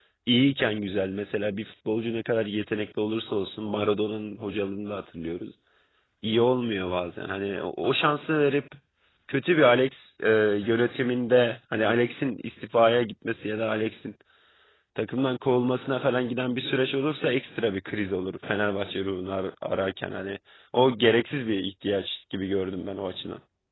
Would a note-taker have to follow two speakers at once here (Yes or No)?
No